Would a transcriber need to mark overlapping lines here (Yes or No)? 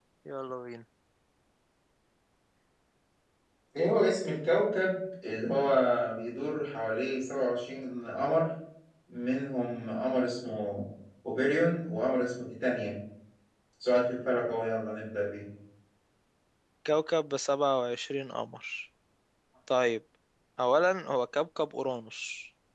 No